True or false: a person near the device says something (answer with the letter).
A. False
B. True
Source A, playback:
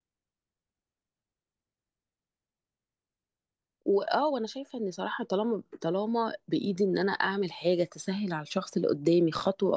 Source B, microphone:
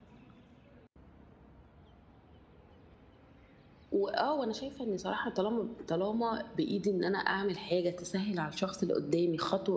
A